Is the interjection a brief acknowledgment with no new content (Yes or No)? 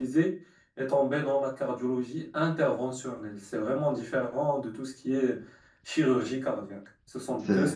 Yes